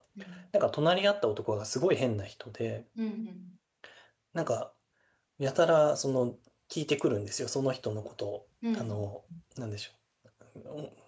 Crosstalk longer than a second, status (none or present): none